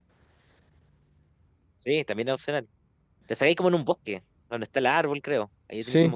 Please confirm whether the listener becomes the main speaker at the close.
Yes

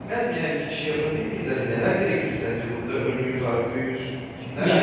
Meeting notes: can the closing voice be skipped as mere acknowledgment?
No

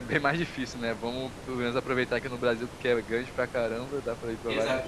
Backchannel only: No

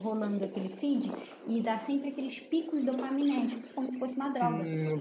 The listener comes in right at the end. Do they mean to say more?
Yes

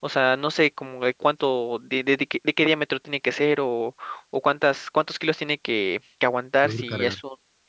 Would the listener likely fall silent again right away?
Yes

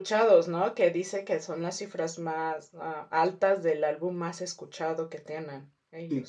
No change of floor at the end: No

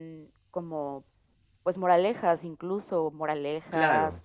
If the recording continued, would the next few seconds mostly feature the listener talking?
No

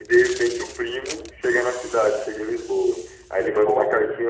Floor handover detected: No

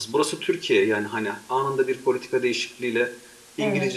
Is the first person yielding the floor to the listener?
No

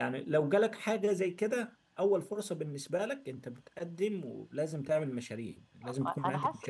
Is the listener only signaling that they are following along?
No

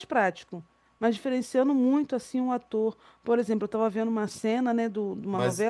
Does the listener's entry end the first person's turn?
No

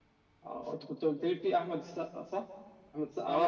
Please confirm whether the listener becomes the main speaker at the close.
Yes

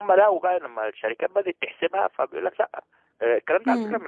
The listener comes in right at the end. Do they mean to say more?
No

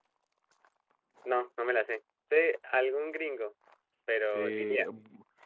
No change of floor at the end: No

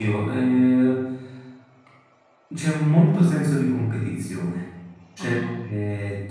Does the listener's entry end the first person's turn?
No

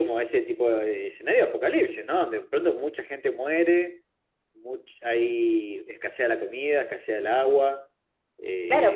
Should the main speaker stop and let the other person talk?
Yes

